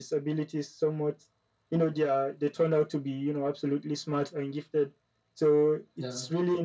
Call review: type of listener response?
listening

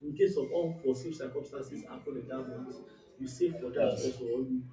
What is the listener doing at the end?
listening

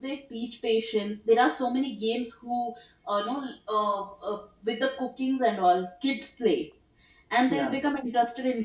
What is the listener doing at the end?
listening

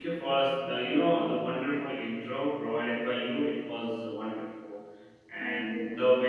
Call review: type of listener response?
listening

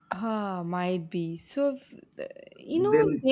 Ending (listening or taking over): listening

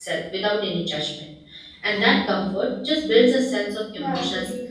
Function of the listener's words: taking over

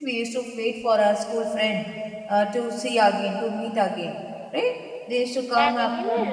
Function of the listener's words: taking over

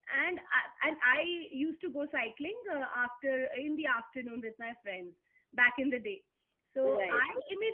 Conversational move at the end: listening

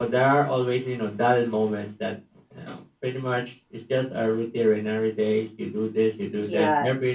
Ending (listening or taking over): taking over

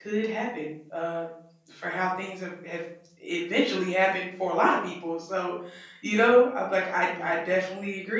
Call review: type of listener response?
listening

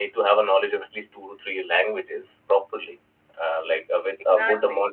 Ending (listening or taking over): listening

